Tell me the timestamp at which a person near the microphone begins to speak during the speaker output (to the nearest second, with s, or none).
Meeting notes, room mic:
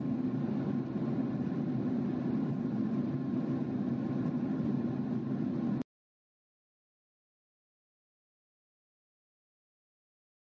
none